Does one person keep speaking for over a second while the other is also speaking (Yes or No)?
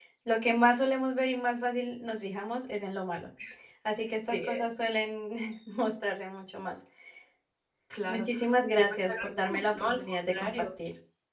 Yes